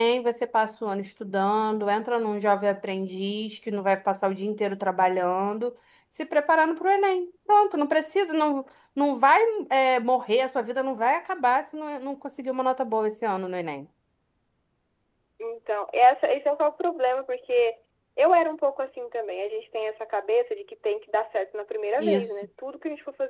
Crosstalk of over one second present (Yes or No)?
No